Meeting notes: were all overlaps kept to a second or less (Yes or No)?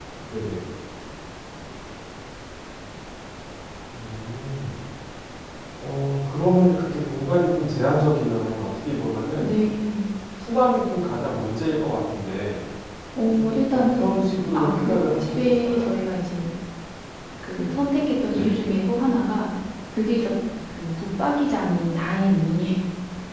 No